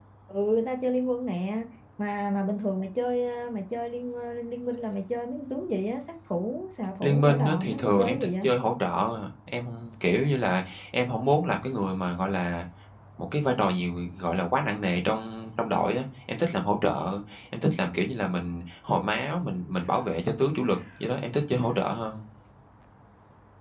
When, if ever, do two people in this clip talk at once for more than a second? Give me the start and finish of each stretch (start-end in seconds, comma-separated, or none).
7.0-8.4